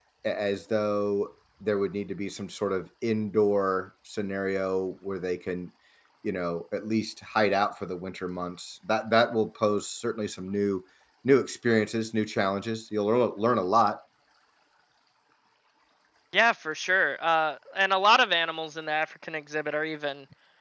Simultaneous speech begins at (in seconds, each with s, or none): none